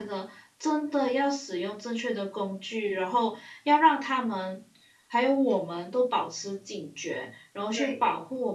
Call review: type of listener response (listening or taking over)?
listening